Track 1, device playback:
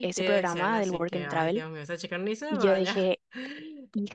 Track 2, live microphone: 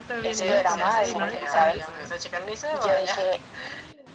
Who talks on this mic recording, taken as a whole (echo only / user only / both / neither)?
both